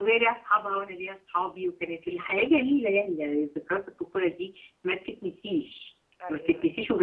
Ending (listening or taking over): listening